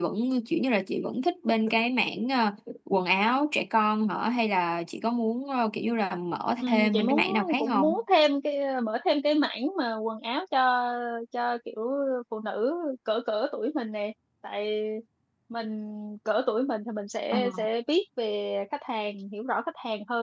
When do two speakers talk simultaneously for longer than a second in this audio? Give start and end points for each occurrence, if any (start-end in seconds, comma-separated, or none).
6.6-8.0